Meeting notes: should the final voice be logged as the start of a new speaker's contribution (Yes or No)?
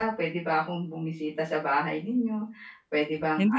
Yes